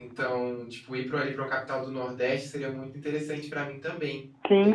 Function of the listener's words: taking over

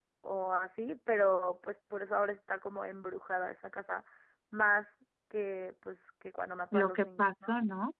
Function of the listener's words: taking over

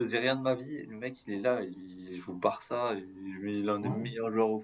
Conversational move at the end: listening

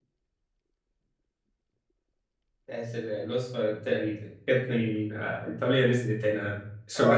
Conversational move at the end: taking over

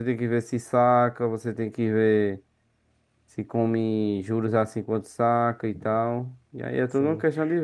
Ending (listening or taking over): taking over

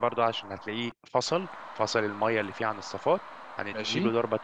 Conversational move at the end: listening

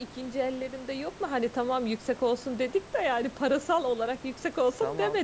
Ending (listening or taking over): taking over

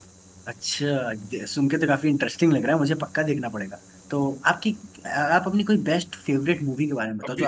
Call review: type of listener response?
taking over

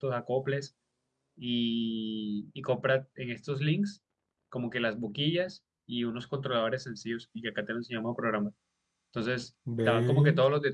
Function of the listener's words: listening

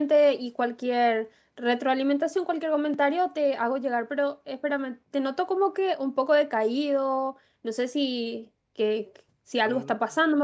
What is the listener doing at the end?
listening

